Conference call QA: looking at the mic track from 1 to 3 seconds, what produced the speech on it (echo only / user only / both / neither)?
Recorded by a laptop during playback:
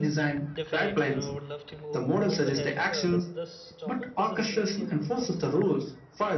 both